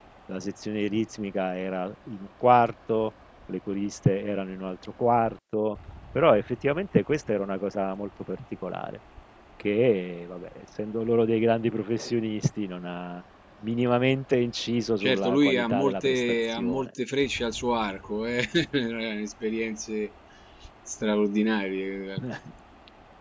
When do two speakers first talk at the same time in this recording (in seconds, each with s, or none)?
15.0 s